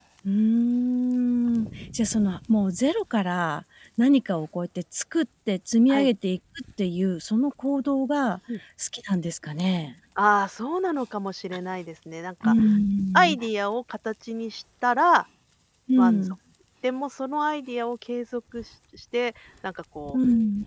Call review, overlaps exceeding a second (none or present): none